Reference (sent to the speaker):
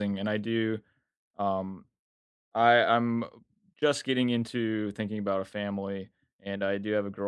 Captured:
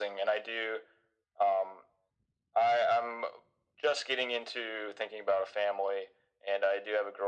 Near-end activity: none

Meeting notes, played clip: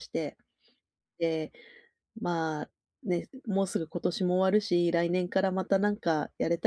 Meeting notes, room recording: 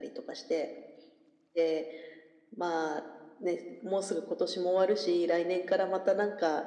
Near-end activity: none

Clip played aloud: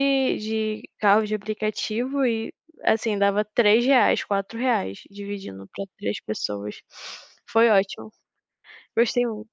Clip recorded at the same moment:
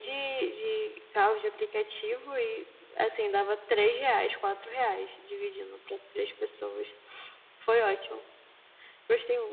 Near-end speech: none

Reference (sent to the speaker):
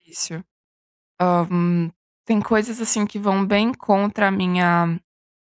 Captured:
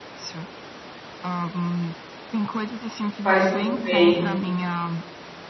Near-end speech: present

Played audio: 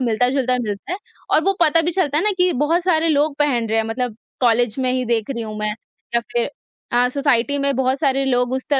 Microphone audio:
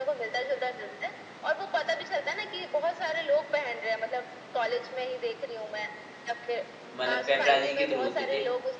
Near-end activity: present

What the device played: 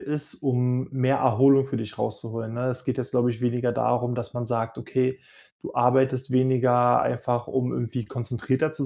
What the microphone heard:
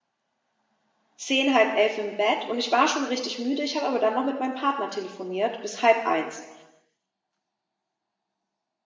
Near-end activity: present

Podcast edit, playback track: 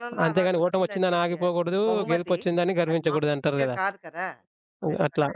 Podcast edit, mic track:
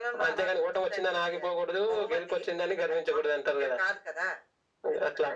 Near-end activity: none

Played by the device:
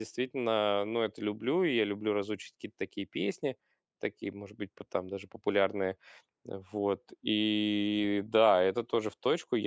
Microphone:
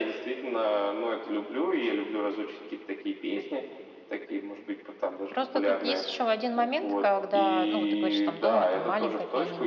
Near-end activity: present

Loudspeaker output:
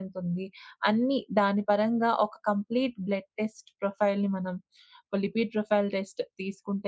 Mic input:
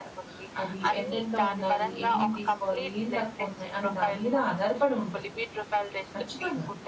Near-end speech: present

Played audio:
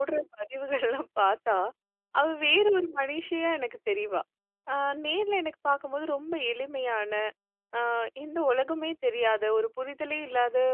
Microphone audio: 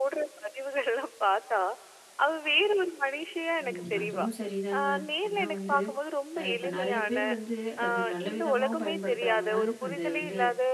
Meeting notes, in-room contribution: present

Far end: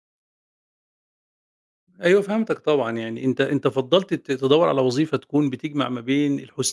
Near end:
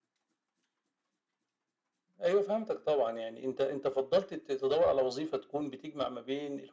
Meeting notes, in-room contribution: none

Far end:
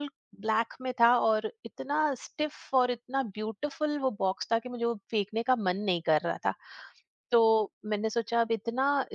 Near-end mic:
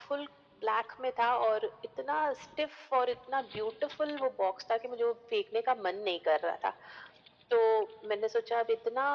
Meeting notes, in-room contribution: none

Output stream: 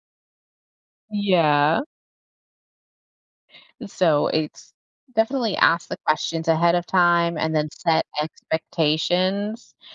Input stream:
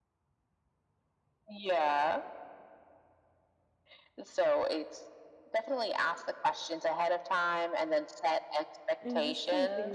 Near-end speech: present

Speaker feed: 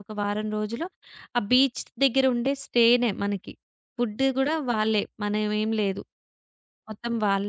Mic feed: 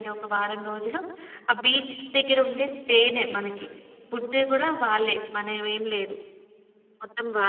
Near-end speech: none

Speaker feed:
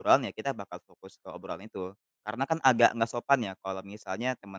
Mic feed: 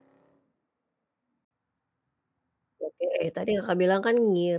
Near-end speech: present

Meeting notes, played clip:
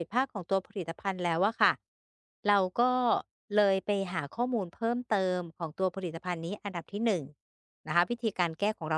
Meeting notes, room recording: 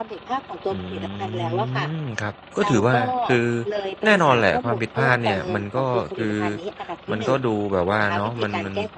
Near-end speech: present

